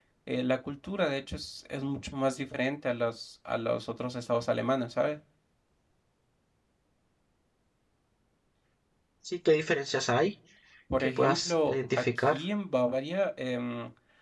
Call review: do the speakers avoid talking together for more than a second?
No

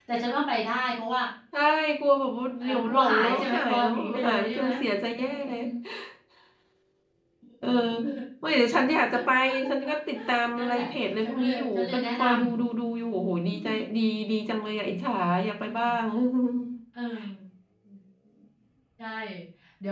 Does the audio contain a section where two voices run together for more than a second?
Yes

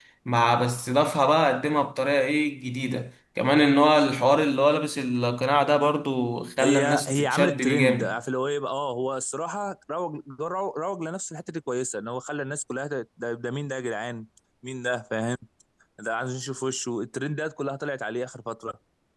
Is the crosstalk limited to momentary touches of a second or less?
No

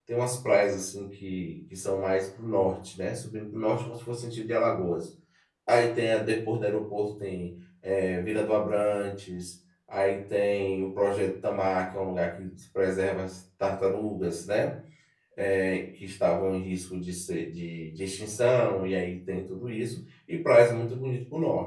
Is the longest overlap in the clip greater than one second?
No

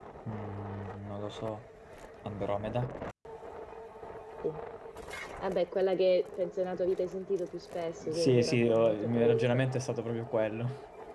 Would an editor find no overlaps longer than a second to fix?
No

